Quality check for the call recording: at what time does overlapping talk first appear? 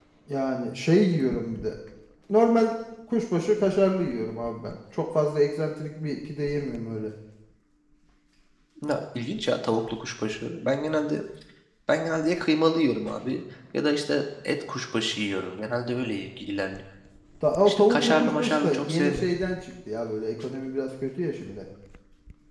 17.7 s

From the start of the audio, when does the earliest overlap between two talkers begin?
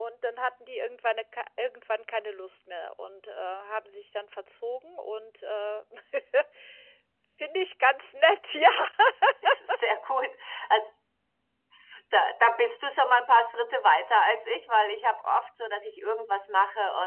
none

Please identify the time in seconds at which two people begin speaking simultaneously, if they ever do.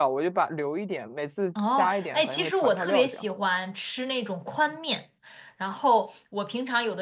1.6 s

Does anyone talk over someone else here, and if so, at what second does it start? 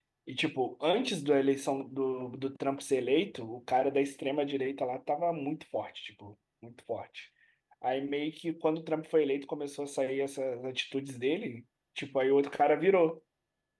none

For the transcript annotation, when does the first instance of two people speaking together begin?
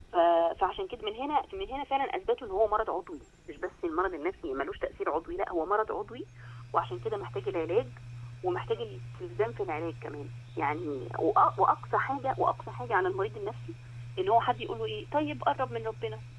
none

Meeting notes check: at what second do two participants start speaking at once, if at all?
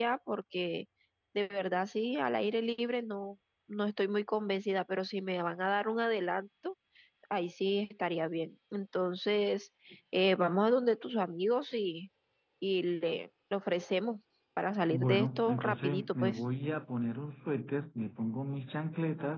14.9 s

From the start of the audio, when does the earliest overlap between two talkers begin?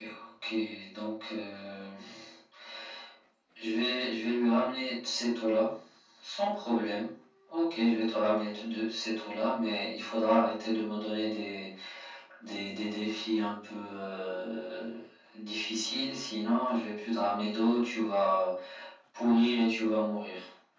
none

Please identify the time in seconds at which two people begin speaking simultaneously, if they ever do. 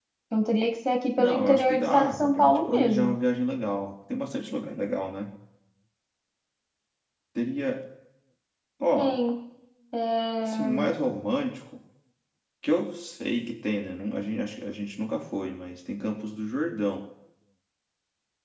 1.2 s

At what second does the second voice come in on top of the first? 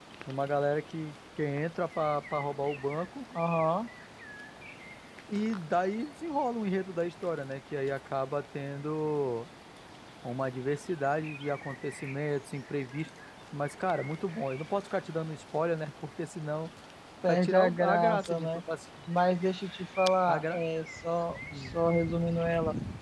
17.3 s

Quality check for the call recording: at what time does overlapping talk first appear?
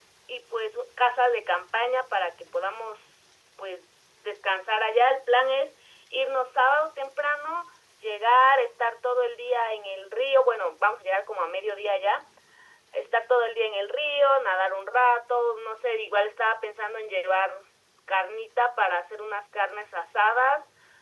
none

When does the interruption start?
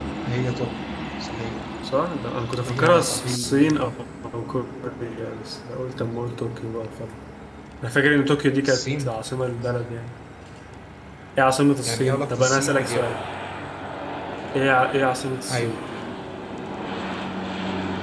2.6 s

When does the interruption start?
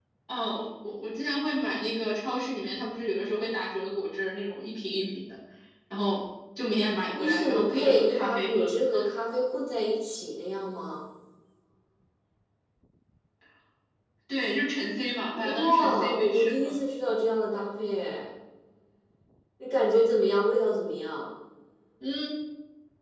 7.1 s

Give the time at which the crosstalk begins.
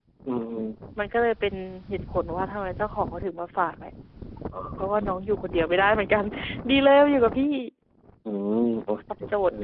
none

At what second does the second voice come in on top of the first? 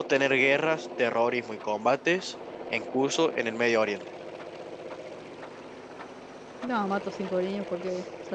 none

